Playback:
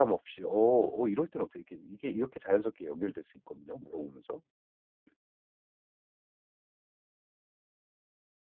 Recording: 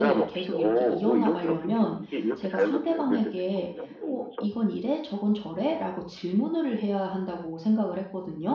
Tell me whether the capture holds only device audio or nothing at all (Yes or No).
No